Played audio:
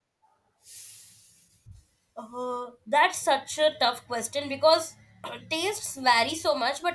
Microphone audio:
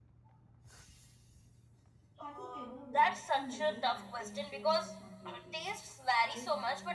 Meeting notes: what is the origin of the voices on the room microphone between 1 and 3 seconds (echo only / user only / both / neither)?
both